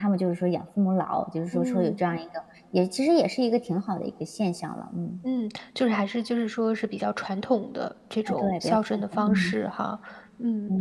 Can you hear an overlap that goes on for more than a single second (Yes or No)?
Yes